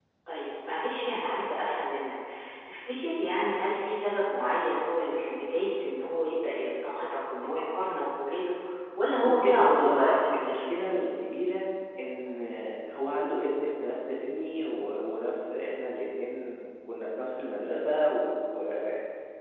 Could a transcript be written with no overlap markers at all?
No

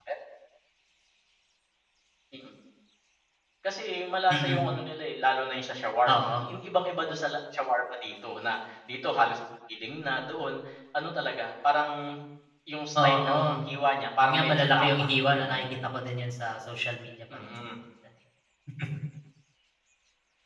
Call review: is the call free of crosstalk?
No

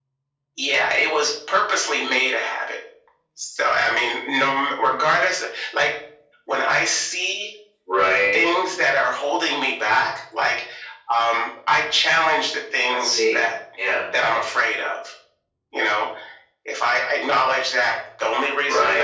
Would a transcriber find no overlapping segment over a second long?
Yes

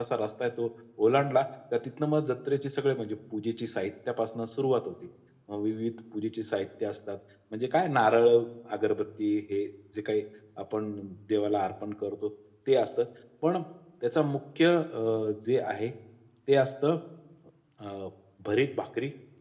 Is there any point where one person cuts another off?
No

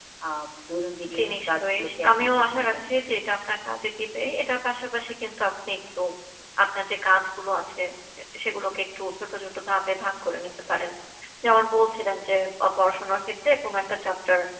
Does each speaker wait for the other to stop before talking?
No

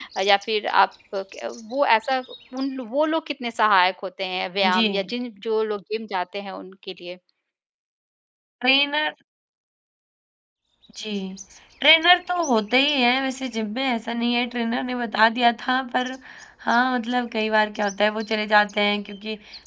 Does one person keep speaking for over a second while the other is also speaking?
No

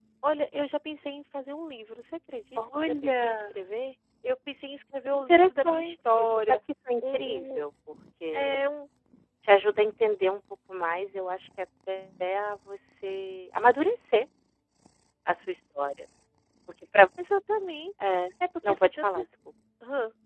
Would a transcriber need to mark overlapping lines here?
Yes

